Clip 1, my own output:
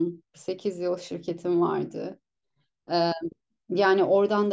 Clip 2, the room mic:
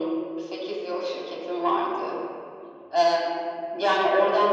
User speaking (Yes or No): No